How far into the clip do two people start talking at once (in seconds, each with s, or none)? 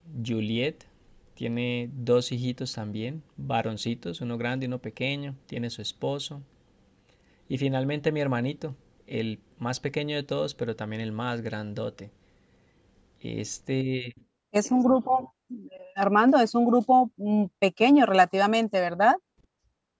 none